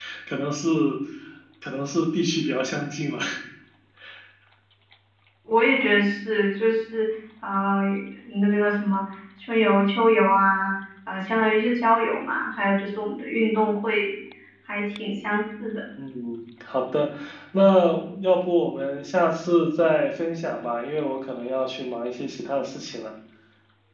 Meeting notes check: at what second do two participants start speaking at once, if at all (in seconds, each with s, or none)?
none